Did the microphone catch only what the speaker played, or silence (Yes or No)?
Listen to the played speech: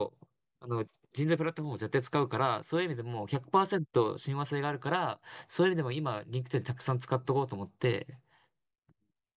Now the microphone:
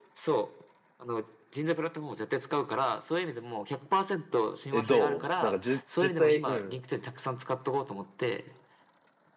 No